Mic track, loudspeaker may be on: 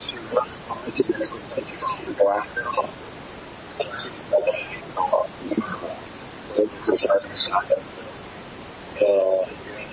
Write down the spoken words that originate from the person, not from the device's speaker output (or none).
none